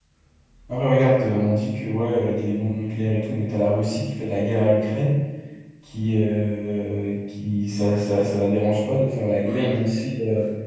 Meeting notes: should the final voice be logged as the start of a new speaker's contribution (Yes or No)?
No